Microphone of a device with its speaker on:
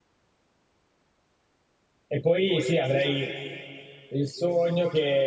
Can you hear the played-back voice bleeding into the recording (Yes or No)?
No